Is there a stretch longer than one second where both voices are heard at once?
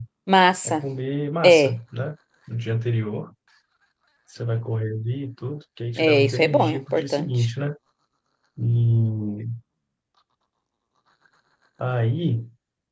Yes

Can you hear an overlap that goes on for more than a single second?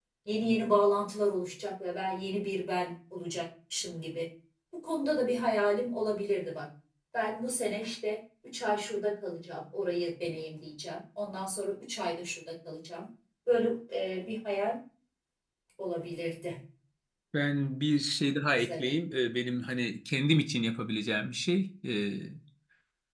No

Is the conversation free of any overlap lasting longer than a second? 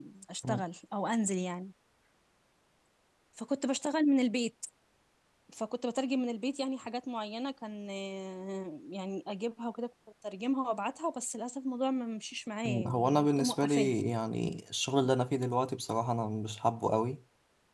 No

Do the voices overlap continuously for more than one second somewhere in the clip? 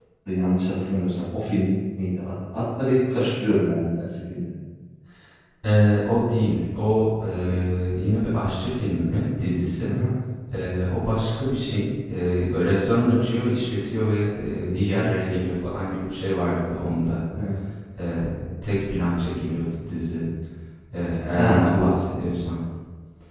No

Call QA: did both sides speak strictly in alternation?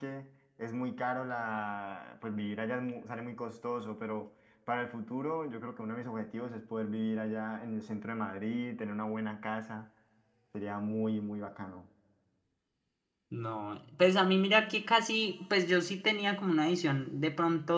Yes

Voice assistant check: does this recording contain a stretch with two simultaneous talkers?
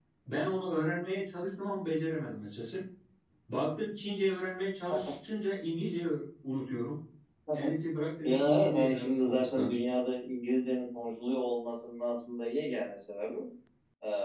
Yes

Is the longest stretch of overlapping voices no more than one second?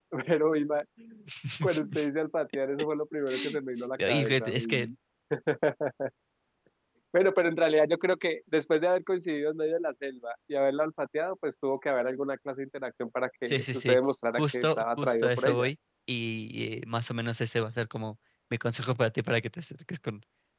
No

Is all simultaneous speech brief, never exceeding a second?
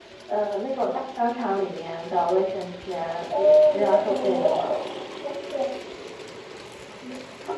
No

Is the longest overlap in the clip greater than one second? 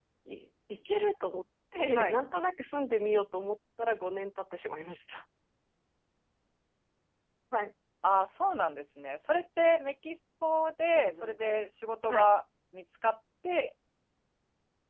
No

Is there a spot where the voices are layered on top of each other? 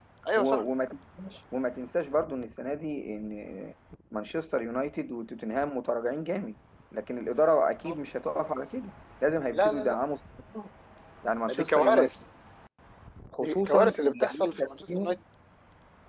Yes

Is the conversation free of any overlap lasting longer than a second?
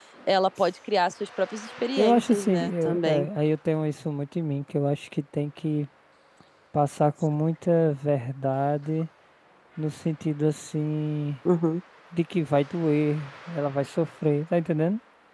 No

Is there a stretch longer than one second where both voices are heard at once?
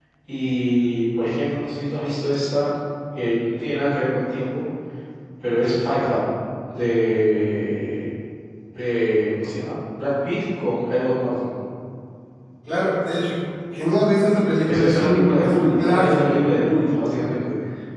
Yes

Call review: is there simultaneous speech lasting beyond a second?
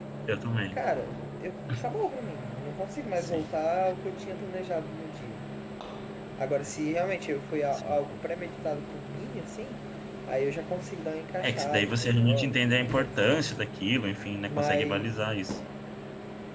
Yes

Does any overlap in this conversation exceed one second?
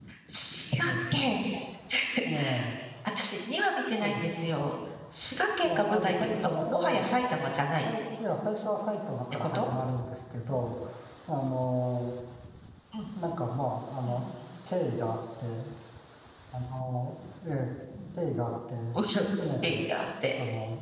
Yes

